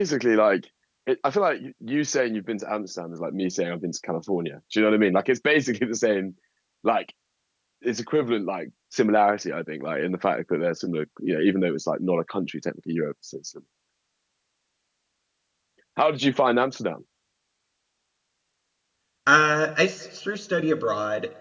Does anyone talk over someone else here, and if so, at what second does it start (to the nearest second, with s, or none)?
none